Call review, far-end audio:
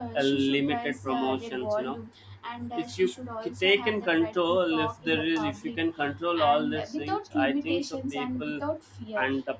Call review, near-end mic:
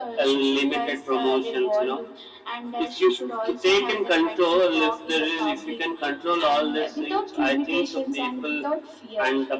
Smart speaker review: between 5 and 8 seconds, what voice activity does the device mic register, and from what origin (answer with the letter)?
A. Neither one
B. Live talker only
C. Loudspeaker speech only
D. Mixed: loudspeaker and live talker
C